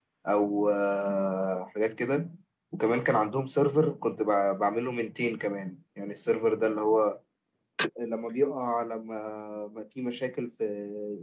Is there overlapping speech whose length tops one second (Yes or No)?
No